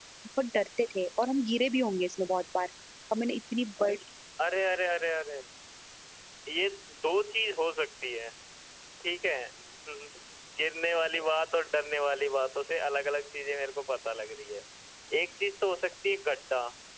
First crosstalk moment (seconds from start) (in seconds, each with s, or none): none